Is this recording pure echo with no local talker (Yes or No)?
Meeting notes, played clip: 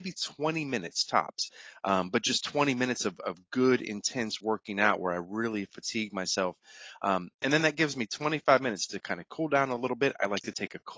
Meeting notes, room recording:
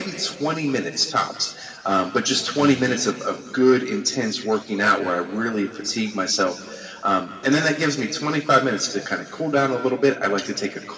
No